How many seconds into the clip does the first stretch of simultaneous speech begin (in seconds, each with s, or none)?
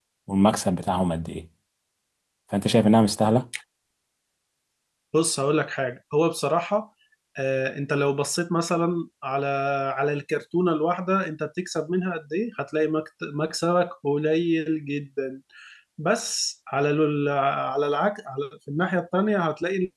none